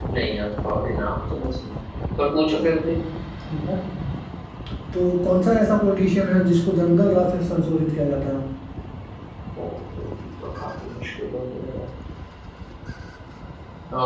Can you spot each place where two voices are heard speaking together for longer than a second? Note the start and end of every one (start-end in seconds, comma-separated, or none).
none